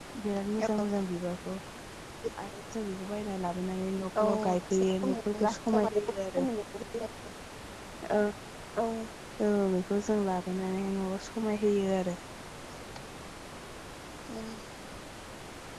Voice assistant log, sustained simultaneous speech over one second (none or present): present